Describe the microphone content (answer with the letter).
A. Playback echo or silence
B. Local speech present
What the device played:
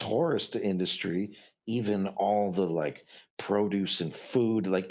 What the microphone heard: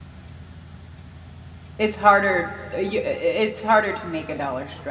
B